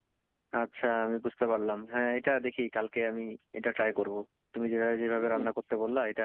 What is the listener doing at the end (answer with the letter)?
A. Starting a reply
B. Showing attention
B